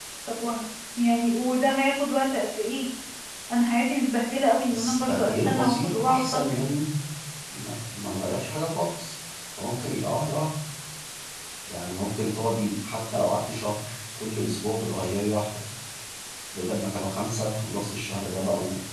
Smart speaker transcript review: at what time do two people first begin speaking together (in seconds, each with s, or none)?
4.7 s